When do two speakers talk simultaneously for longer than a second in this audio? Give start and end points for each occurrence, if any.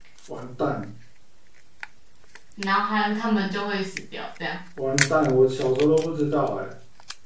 none

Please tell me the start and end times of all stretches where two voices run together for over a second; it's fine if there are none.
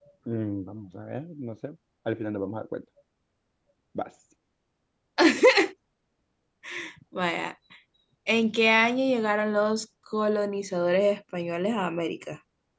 none

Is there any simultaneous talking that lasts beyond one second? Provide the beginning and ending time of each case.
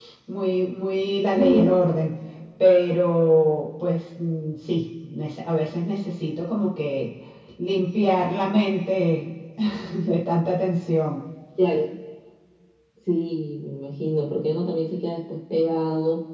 none

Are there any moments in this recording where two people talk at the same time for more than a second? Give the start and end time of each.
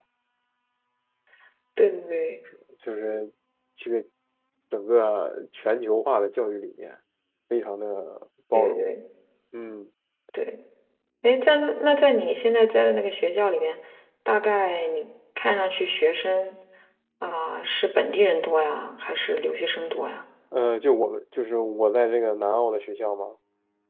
none

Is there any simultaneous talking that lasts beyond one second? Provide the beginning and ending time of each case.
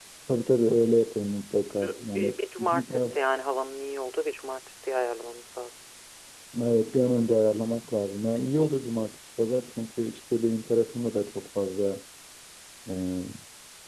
1.8-3.0

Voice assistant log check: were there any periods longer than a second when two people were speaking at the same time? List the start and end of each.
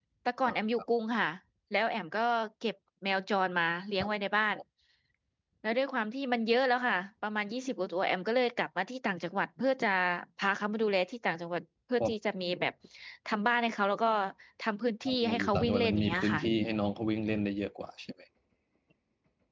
15.1-16.4

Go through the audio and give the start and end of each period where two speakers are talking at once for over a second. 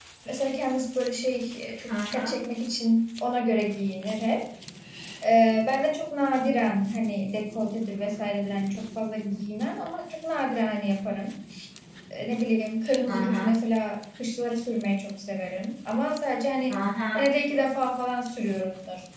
none

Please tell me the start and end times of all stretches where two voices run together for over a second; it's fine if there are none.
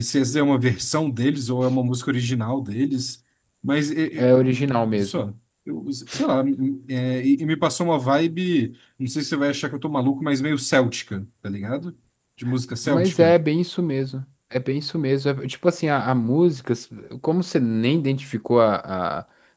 none

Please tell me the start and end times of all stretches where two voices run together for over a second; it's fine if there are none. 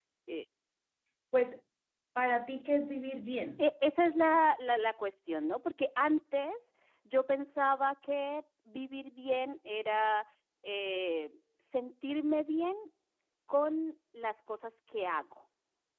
none

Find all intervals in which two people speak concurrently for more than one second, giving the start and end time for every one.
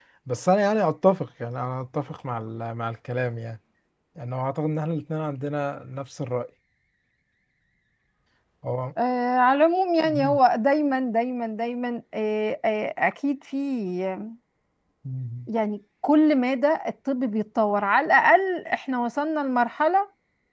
none

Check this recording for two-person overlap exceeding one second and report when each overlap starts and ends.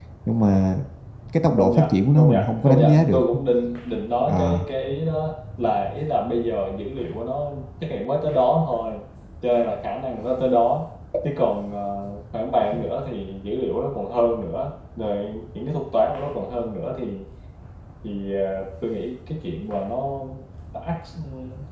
1.6-3.2

